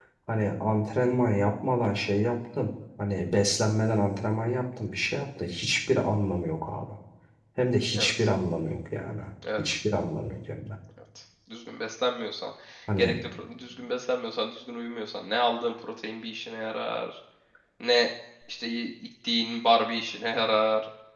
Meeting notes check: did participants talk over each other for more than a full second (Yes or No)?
No